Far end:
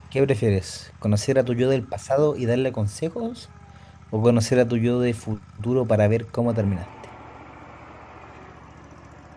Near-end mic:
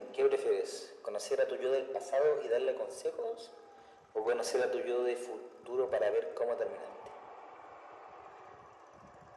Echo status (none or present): present